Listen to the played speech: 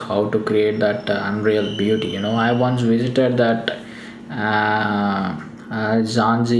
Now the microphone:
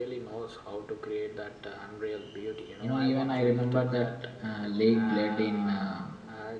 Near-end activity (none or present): present